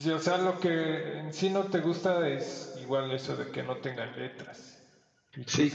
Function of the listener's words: taking over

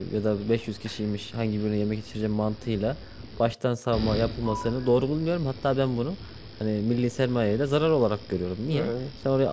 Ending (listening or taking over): listening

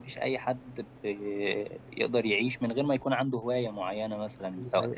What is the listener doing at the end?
listening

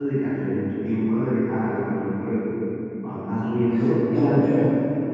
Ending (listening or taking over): listening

